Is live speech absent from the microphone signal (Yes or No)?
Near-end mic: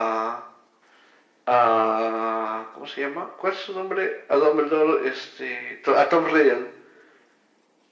Yes